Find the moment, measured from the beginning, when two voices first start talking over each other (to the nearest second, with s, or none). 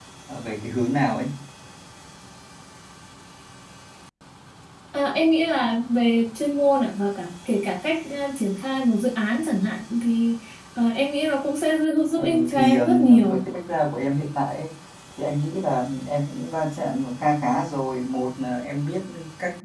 12 s